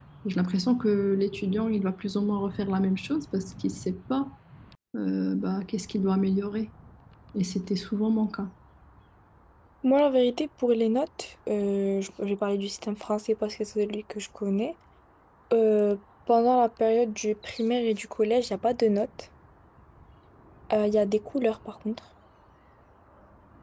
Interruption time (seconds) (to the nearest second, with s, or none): none